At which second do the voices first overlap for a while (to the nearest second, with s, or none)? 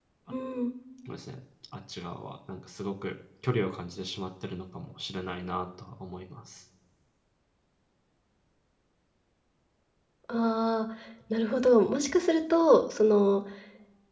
none